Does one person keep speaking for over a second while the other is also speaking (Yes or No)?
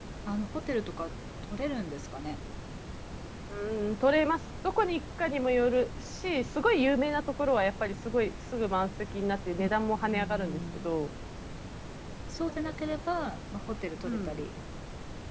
Yes